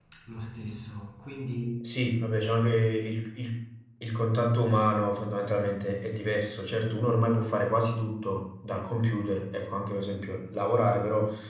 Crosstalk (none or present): none